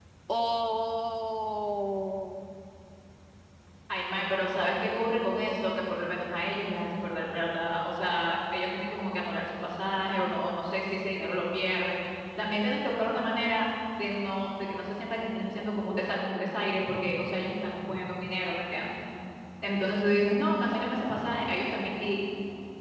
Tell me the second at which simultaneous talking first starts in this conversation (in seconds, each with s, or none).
none